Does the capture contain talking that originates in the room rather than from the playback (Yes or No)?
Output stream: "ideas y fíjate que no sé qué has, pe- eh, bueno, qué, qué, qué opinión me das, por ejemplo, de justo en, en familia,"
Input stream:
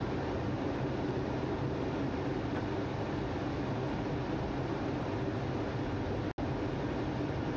No